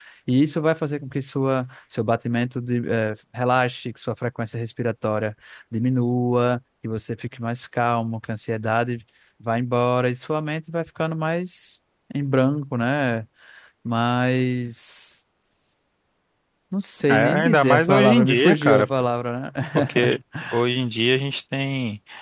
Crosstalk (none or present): present